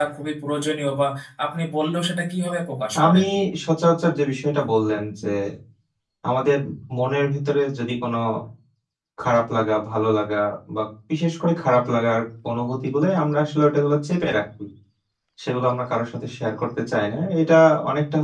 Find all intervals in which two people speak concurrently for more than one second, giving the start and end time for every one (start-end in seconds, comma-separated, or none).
none